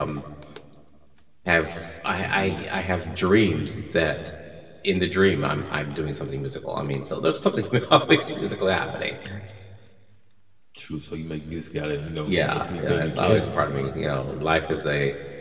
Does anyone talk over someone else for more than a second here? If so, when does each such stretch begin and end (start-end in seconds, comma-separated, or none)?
12.3-13.5